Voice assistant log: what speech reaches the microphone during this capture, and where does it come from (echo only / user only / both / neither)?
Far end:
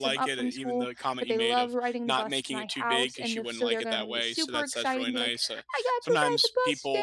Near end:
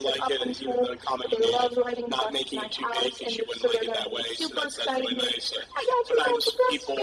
echo only